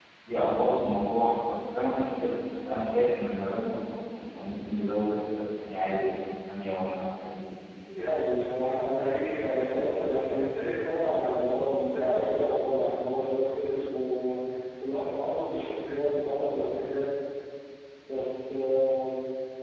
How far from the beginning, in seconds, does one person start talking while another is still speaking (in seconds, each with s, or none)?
none